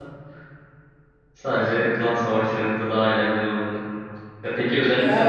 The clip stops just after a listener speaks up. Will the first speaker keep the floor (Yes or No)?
Yes